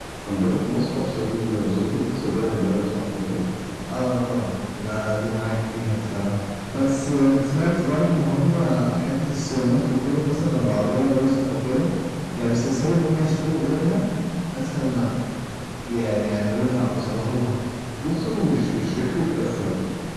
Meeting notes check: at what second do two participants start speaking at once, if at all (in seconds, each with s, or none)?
none